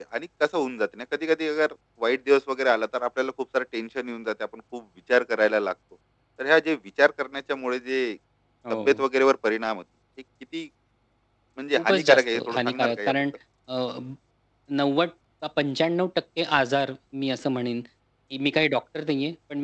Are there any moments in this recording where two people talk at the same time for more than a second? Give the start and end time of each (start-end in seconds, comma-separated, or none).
11.8-13.1